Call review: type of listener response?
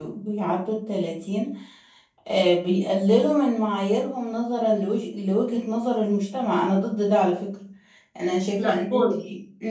listening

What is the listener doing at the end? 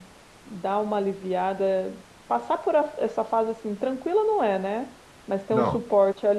listening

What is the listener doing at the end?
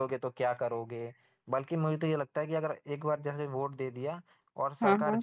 listening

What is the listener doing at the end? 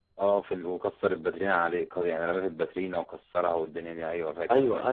taking over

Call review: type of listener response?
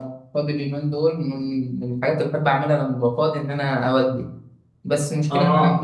listening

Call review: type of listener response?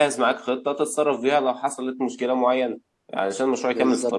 listening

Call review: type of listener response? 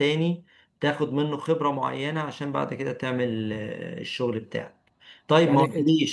listening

